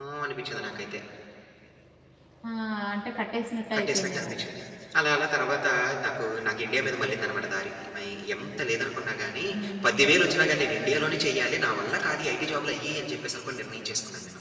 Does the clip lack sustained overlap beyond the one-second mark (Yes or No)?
Yes